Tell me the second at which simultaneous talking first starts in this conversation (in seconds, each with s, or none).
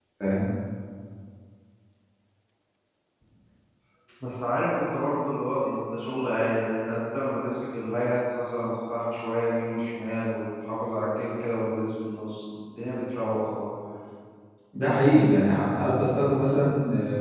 none